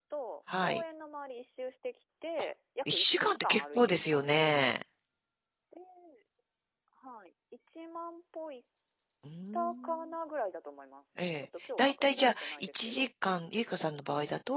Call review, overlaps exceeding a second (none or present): present